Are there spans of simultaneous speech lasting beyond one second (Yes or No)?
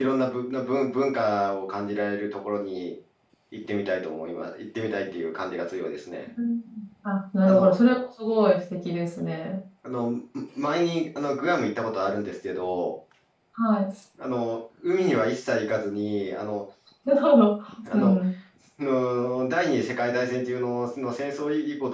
No